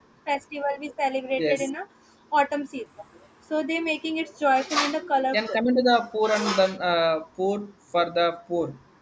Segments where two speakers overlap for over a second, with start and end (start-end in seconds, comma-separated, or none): none